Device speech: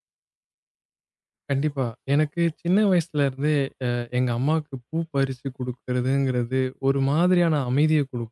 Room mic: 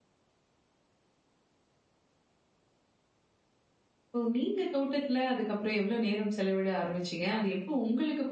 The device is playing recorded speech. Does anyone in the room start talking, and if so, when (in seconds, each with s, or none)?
4.1 s